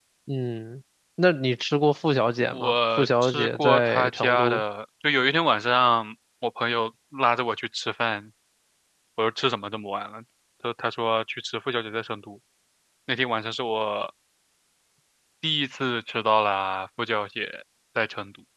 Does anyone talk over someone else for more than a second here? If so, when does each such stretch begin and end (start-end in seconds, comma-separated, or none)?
2.5-4.6